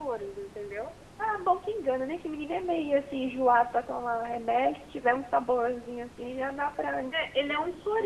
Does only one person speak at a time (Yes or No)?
Yes